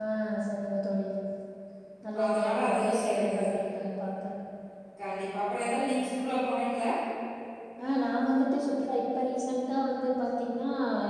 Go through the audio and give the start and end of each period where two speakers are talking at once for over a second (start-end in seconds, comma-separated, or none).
2.3-3.5